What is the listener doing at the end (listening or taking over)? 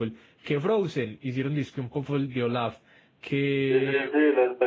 taking over